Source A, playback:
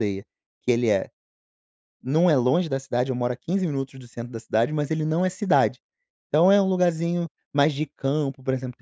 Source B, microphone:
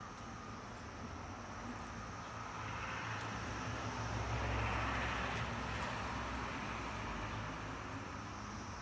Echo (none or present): none